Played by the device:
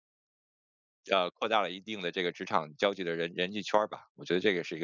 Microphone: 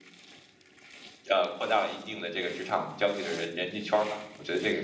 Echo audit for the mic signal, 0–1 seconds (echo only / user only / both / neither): neither